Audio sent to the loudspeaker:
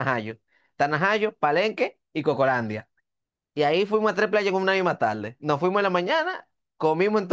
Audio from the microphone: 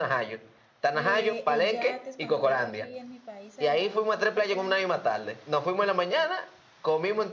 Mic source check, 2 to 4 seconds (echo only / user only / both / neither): both